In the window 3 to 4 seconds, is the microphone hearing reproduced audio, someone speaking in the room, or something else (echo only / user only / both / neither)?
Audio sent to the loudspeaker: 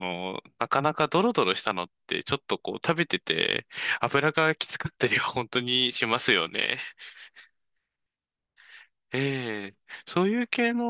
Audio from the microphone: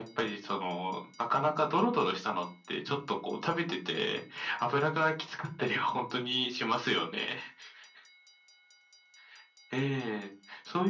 echo only